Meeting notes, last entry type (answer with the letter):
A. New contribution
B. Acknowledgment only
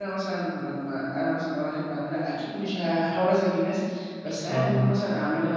B